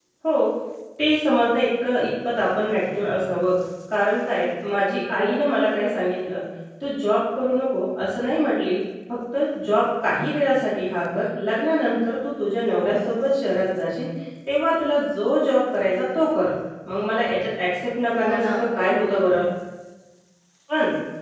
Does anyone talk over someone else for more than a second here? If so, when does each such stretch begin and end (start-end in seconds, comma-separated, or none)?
18.2-19.5